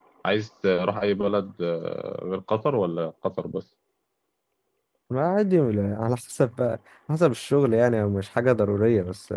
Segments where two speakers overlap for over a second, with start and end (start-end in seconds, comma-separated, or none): none